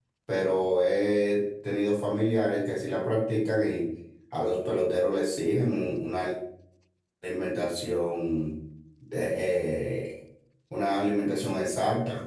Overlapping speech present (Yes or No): No